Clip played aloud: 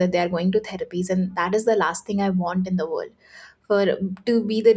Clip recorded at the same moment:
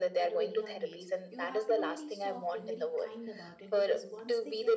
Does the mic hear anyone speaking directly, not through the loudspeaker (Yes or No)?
Yes